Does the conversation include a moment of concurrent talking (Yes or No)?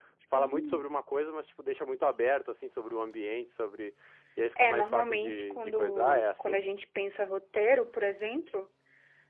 Yes